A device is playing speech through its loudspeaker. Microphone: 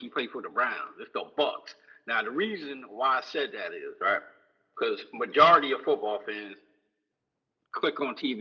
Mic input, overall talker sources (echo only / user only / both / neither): echo only